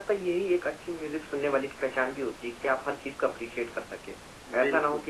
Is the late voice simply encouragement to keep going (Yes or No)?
Yes